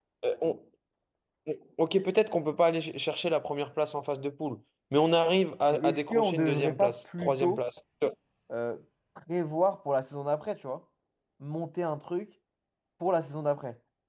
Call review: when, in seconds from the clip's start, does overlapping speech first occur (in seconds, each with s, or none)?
5.7 s